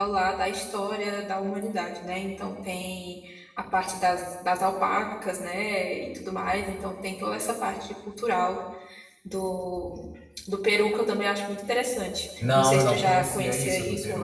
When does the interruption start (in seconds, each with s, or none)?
12.4 s